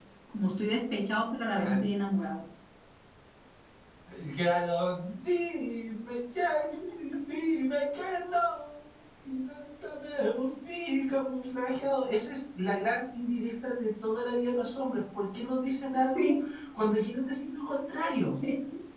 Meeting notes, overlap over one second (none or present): none